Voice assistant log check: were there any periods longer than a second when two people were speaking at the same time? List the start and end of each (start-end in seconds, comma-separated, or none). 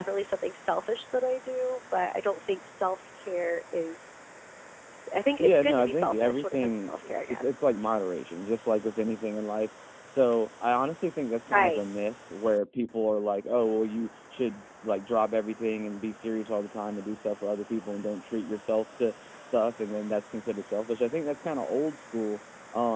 5.4-7.5